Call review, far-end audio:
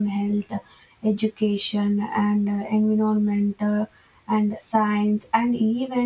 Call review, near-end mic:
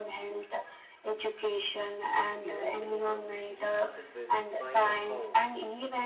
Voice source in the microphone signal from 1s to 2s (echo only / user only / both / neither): echo only